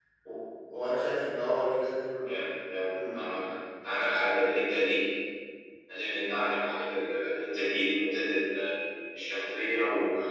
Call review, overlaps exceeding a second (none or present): none